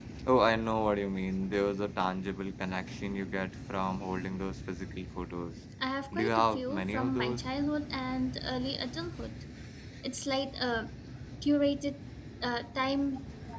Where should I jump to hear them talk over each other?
6 s

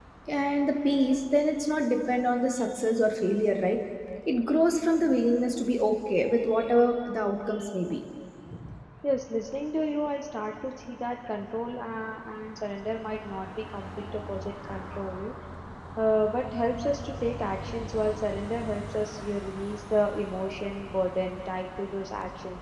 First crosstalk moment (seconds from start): none

